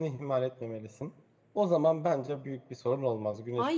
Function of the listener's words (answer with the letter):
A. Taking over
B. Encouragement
A